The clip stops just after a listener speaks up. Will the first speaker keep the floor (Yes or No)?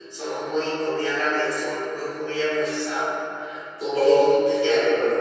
No